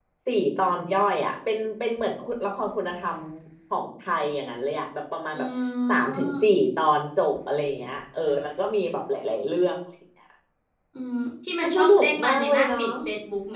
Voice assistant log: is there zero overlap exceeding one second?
No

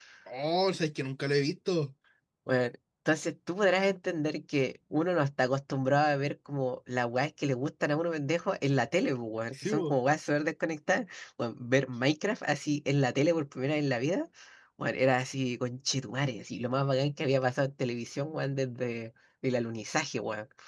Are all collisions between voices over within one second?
Yes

